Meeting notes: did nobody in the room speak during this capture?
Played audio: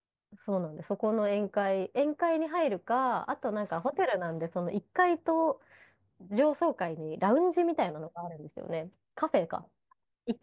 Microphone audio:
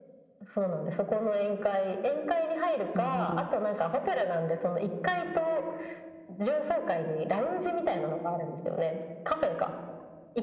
No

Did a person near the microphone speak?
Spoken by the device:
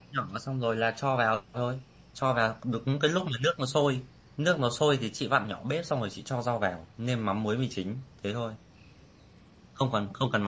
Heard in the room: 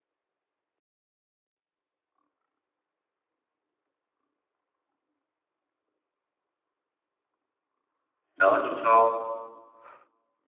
Yes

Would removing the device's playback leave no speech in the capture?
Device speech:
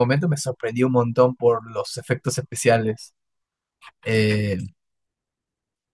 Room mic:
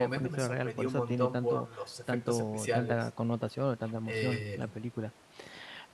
No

